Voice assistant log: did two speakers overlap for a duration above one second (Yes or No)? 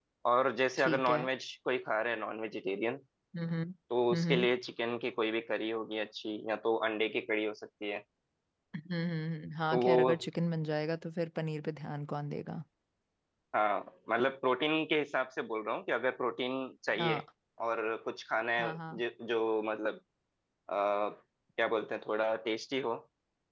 No